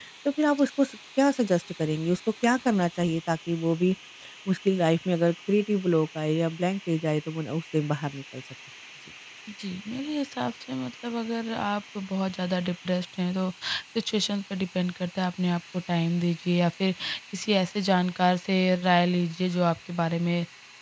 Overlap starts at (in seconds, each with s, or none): none